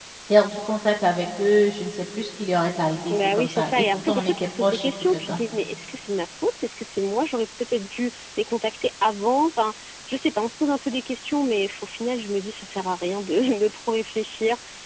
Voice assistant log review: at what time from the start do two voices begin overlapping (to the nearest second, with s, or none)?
3 s